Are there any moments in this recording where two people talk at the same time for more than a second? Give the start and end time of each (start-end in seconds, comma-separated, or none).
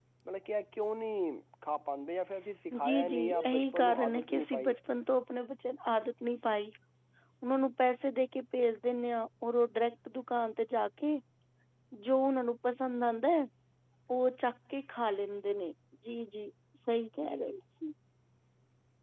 2.8-4.8